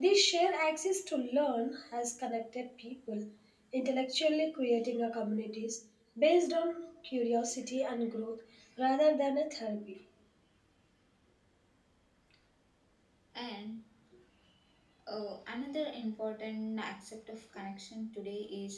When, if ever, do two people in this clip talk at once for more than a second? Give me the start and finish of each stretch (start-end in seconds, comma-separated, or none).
none